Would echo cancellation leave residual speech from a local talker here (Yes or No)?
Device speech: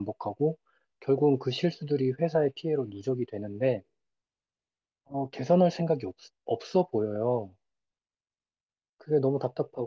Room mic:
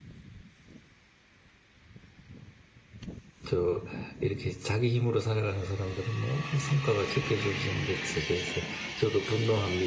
Yes